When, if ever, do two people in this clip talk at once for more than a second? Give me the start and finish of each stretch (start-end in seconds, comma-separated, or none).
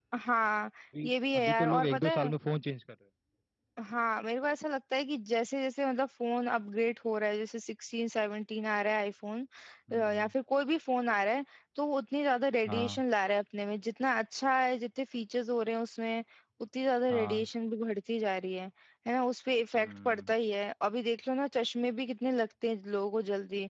1.0-2.3